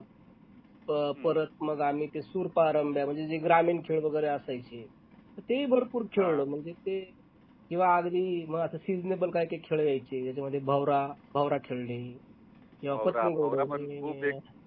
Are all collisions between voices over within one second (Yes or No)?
No